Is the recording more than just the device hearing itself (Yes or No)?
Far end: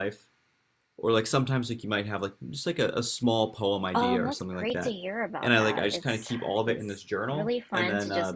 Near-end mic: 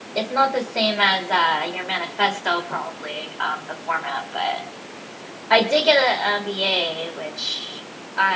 Yes